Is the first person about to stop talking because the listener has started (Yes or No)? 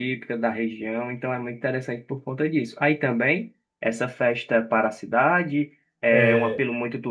No